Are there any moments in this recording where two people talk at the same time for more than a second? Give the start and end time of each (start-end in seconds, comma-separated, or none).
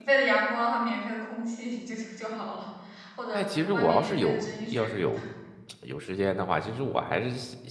3.3-5.2